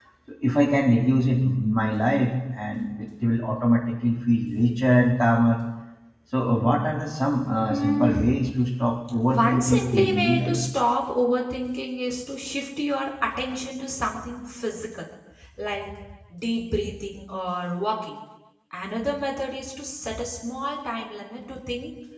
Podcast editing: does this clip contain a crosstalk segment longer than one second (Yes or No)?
Yes